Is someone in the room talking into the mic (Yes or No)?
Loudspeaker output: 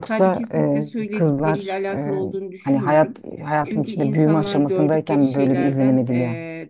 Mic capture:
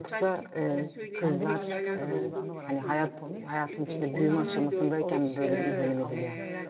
Yes